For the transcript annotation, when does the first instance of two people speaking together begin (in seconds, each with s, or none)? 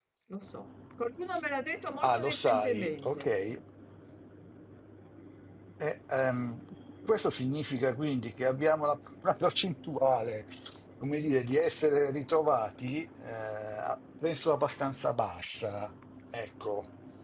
2.0 s